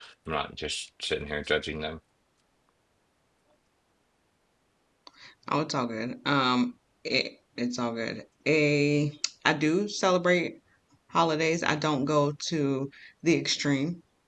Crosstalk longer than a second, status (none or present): none